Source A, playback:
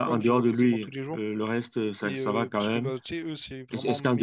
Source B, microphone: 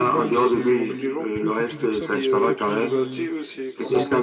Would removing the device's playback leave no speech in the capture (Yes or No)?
No